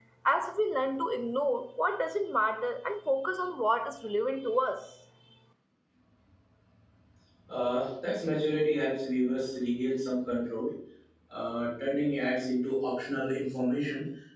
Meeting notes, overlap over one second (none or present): none